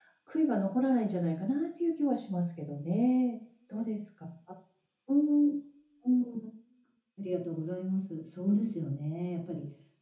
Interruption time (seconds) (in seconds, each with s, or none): none